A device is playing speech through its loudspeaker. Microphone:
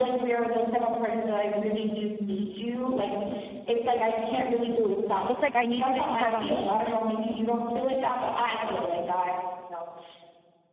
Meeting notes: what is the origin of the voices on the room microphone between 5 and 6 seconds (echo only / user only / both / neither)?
both